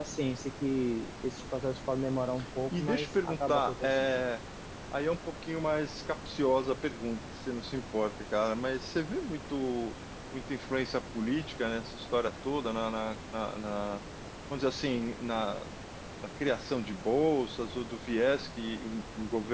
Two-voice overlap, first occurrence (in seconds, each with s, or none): 2.7 s